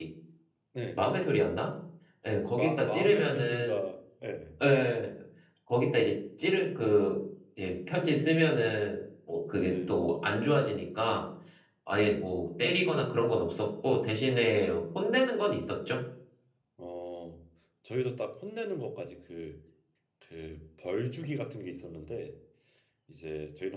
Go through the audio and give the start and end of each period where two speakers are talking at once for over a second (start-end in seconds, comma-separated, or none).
2.5-3.8